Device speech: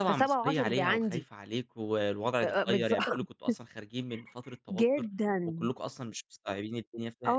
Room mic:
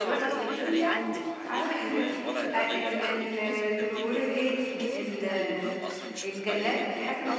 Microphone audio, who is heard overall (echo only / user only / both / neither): both